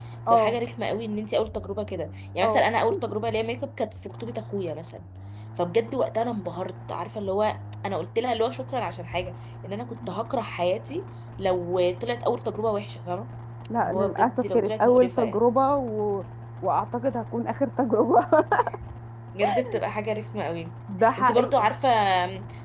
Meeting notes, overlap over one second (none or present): present